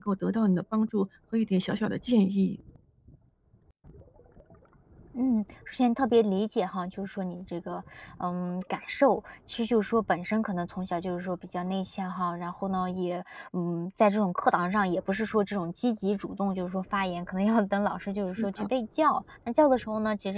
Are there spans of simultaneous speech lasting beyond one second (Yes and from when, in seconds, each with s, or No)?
No